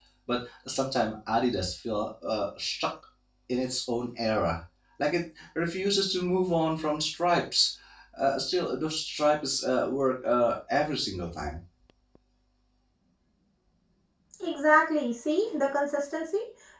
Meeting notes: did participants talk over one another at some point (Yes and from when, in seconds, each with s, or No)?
No